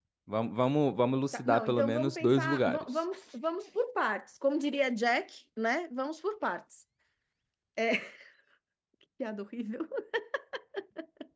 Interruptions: present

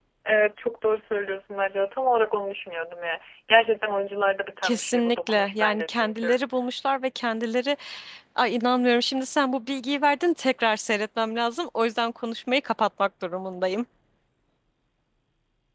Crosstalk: present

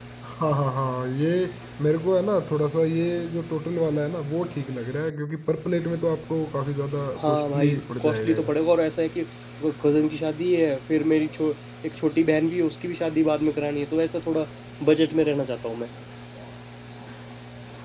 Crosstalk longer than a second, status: present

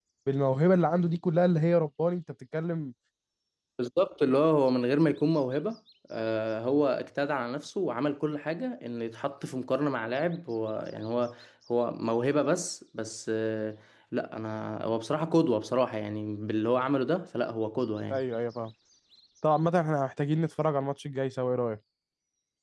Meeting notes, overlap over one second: none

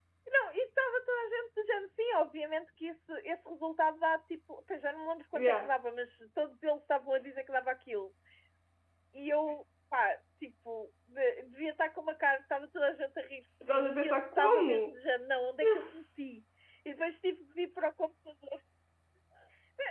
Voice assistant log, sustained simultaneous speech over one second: present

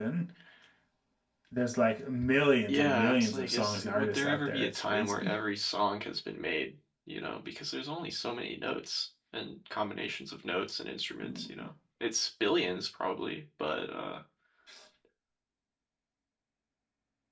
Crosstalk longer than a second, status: present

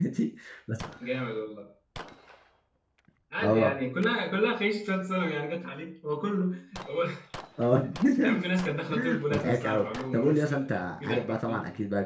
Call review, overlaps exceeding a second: present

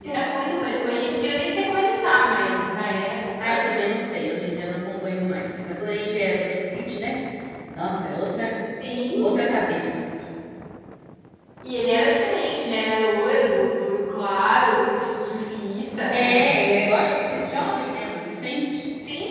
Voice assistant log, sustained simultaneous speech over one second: none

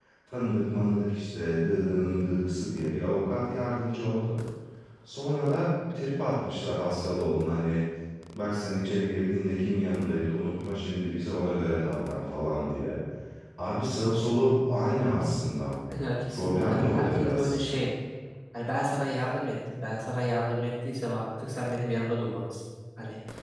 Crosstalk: present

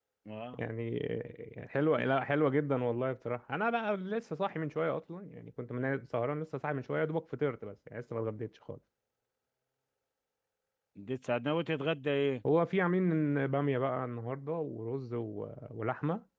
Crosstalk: none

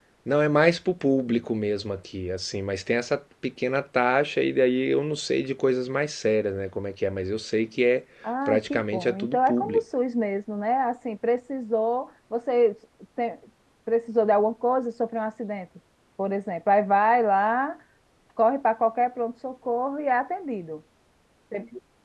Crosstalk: present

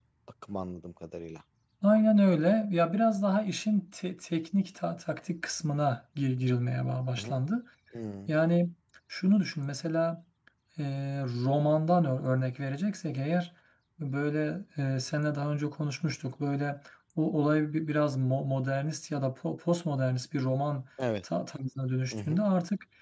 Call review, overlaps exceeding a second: none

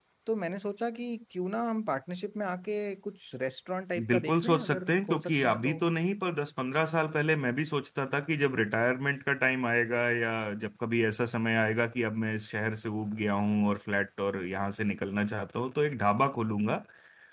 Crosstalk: present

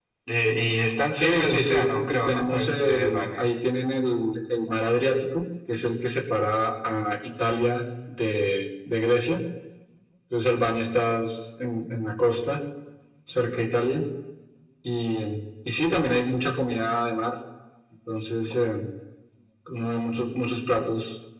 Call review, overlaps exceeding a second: present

